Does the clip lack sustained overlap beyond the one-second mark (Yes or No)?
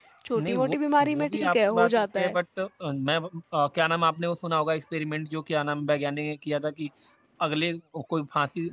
No